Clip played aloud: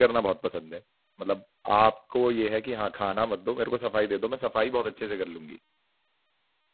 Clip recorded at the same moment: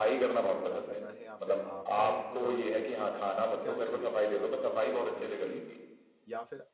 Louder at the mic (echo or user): echo